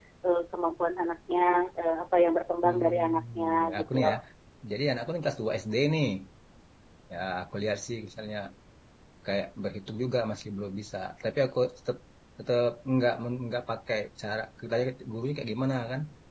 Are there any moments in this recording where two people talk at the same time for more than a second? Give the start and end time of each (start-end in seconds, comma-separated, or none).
2.6-4.1